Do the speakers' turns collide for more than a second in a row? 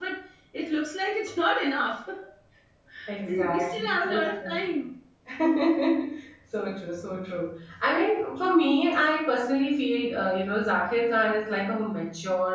Yes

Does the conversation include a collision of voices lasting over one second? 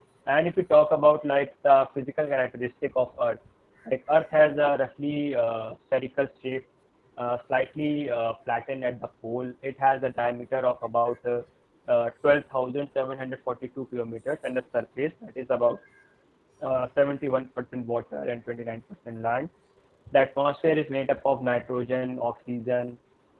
No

